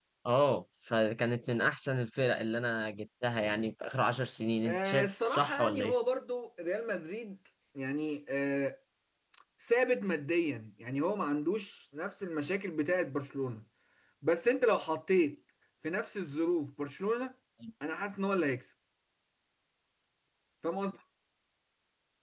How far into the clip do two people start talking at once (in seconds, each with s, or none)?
4.7 s